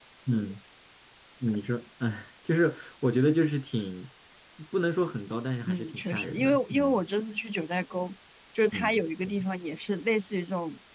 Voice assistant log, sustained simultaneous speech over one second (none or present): present